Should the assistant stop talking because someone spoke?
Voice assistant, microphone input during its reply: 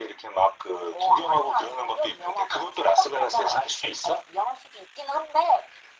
No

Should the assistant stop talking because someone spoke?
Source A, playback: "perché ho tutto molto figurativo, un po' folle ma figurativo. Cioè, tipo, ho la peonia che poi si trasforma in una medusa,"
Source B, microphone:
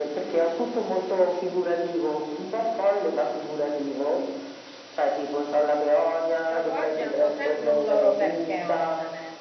Yes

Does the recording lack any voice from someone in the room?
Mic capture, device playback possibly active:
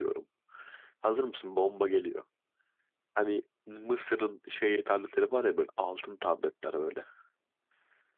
No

